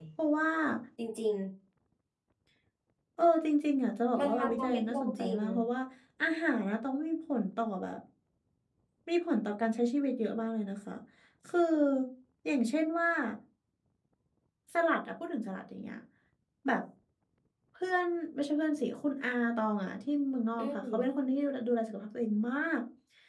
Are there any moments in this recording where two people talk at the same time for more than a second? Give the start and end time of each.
4.2-5.4

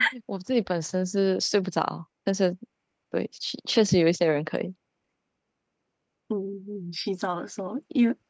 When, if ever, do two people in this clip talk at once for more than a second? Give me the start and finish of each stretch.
none

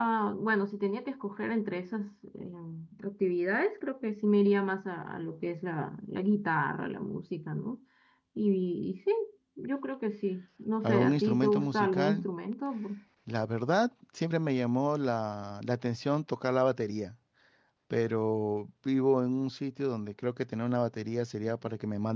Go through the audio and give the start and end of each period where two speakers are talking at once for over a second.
10.8-12.3

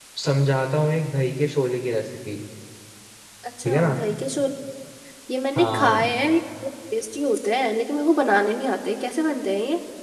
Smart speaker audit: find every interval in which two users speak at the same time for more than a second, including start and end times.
none

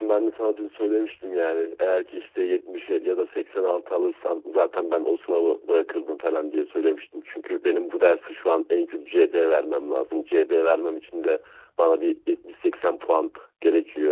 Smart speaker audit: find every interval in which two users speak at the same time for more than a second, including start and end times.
none

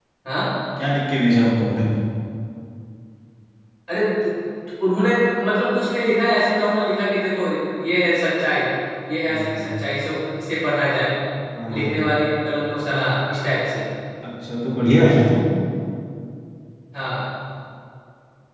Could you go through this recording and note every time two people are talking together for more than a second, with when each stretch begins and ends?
none

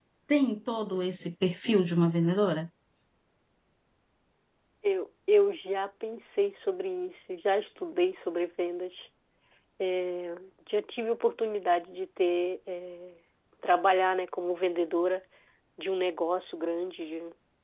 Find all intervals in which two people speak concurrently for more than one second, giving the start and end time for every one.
none

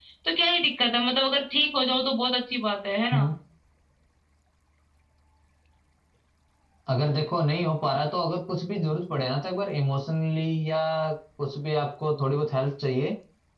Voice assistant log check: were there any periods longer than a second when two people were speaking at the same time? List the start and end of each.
none

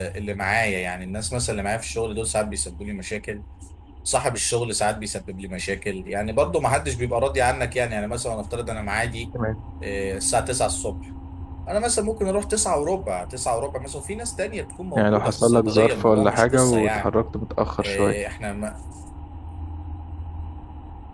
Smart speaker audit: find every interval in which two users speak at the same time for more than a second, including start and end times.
15.0-17.1

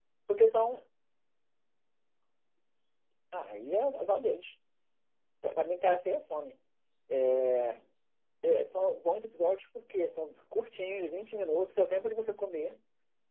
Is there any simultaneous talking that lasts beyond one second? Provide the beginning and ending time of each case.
none

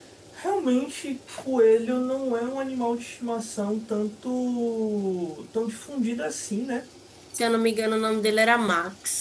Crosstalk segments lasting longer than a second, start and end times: none

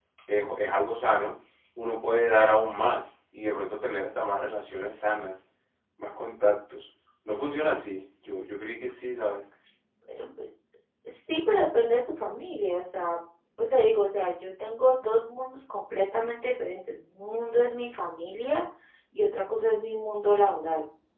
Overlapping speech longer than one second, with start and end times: none

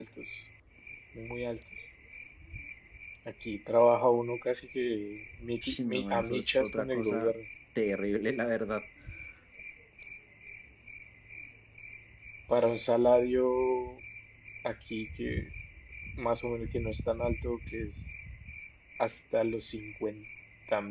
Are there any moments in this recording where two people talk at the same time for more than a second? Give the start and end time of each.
5.6-7.3

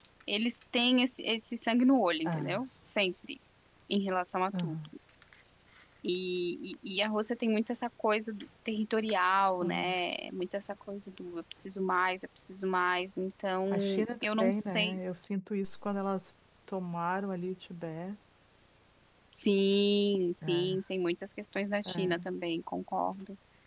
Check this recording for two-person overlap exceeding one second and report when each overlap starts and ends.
13.7-15.0

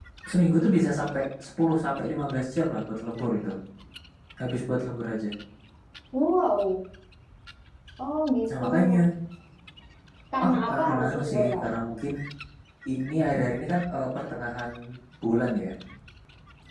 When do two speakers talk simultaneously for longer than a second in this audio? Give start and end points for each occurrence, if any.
10.4-11.6

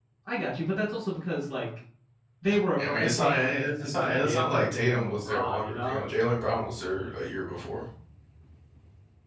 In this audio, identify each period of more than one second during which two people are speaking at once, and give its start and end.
2.8-6.0

